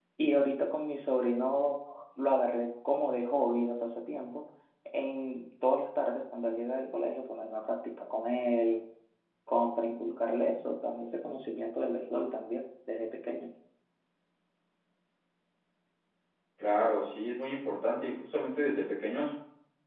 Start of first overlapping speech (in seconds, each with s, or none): none